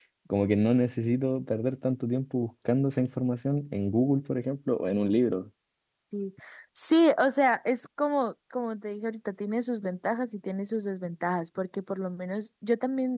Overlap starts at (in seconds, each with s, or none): none